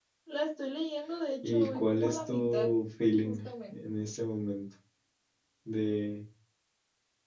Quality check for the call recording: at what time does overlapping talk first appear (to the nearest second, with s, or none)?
1 s